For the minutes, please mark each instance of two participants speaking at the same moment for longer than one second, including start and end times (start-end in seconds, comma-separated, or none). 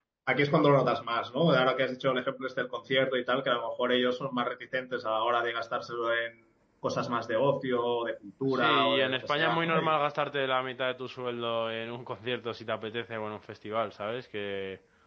8.5-9.9